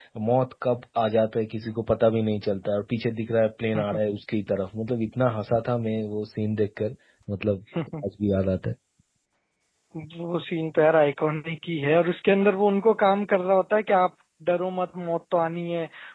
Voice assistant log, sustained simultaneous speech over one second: none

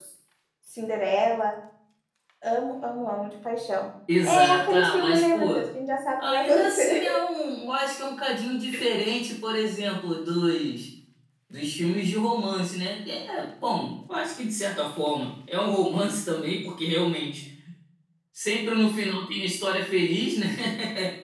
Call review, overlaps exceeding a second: present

